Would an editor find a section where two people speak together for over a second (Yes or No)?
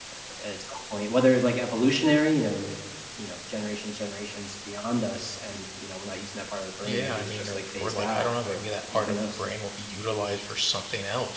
Yes